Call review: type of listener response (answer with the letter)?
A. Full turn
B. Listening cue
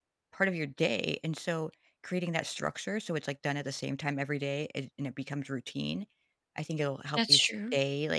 B